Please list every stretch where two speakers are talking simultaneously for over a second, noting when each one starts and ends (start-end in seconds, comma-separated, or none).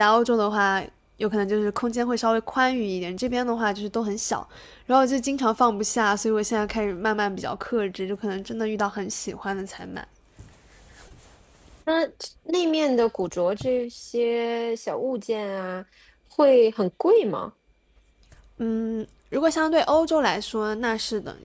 none